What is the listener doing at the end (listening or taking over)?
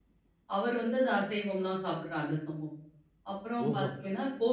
listening